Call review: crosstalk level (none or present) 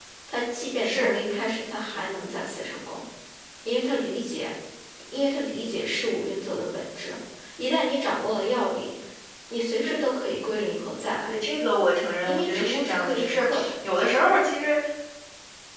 present